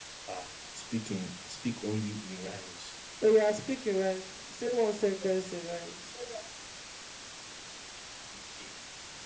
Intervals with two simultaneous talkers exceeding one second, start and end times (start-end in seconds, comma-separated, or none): none